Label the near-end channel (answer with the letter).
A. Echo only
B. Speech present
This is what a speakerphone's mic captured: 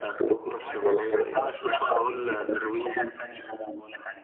A